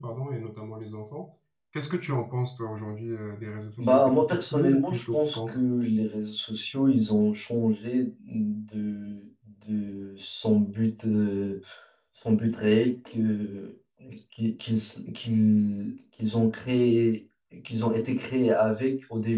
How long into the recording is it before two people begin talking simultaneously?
3.8 s

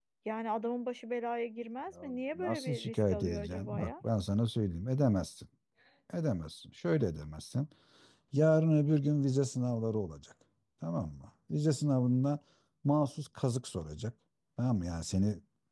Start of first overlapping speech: 2.0 s

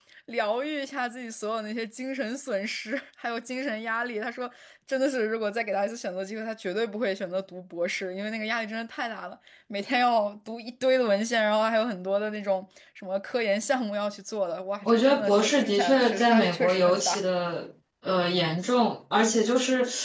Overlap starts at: 14.8 s

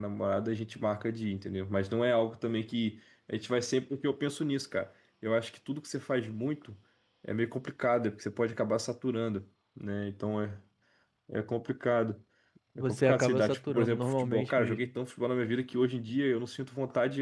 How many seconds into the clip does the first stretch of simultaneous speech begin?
12.8 s

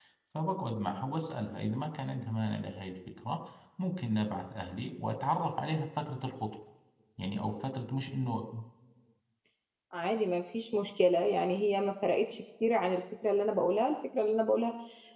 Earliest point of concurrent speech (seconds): none

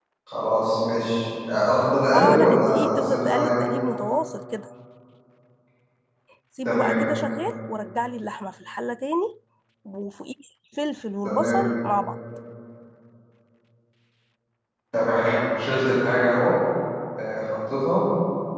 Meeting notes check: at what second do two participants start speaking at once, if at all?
2.1 s

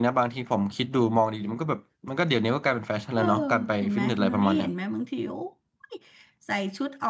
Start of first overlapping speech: 3.2 s

